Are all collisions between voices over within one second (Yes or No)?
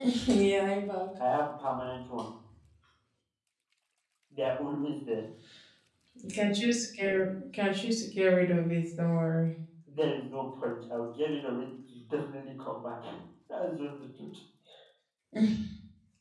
Yes